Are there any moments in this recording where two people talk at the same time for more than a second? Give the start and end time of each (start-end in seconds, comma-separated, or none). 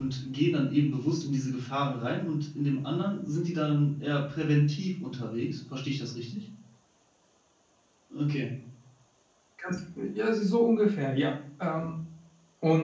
none